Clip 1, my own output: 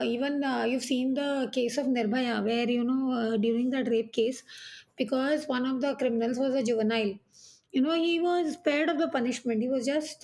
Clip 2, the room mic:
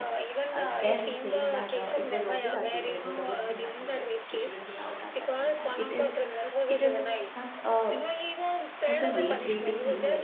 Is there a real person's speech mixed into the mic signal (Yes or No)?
Yes